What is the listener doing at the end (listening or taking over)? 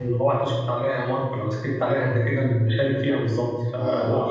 listening